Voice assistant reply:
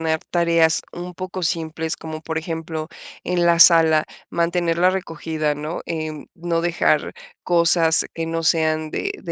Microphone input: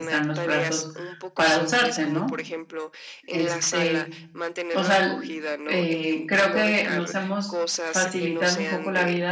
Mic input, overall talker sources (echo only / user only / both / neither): both